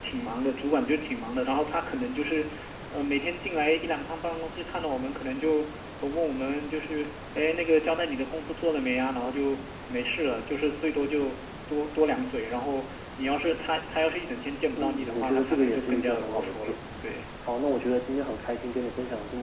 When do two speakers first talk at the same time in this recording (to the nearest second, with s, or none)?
15 s